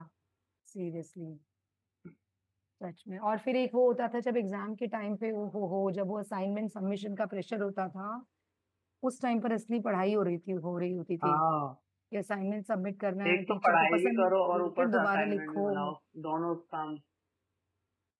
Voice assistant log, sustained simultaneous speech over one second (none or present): present